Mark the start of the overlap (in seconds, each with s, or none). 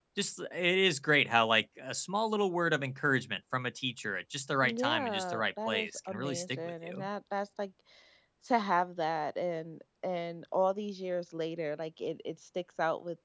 4.6 s